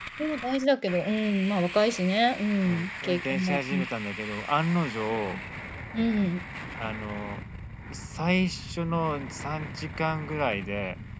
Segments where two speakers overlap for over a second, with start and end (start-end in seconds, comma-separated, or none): 2.6-3.9